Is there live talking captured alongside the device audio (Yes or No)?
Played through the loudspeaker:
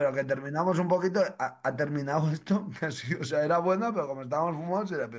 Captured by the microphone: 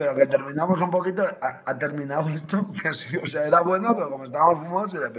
No